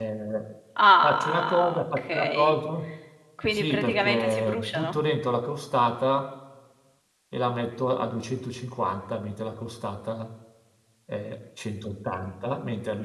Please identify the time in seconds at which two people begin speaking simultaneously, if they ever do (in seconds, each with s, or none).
1.0 s